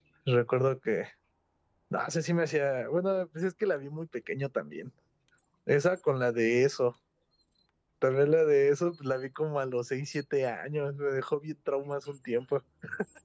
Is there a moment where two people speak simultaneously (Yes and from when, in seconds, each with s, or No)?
No